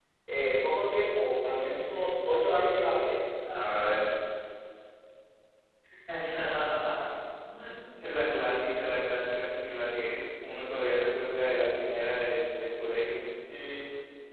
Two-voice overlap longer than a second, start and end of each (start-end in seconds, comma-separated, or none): none